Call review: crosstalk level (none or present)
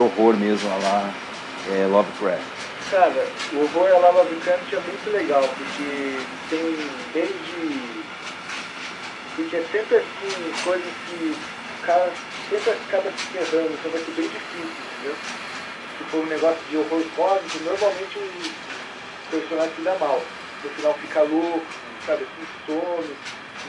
none